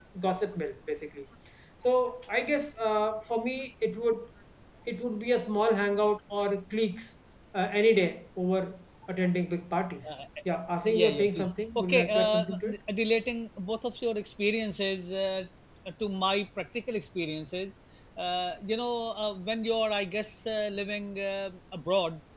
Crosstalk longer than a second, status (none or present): present